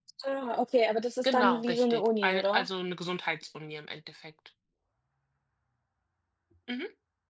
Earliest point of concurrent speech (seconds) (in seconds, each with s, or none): 1.2 s